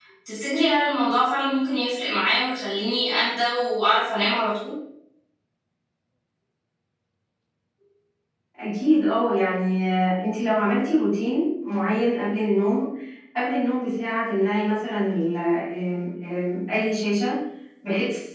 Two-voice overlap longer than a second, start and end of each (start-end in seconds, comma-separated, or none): none